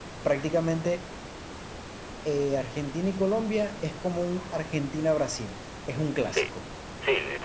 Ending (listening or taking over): taking over